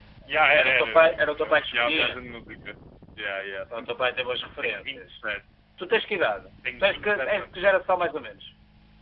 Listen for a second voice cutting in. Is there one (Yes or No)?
Yes